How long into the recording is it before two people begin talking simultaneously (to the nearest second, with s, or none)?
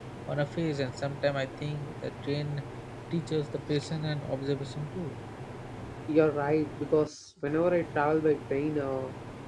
none